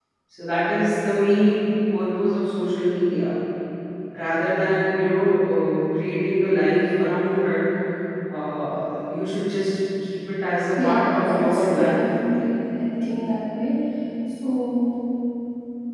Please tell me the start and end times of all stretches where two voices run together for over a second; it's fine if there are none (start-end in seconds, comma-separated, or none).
10.7-12.0